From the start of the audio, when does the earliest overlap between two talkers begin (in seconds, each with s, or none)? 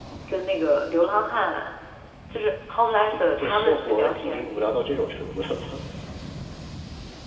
3.1 s